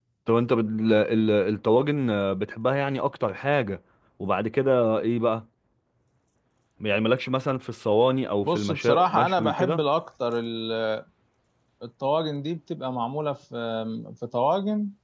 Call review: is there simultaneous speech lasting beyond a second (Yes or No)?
Yes